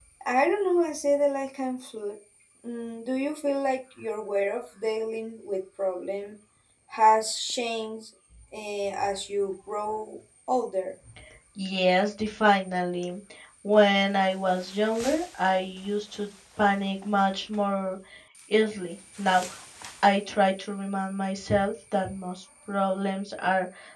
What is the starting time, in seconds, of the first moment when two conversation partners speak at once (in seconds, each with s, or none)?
none